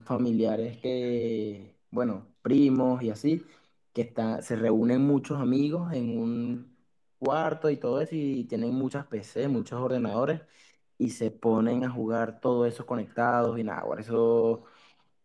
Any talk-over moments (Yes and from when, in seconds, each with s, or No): No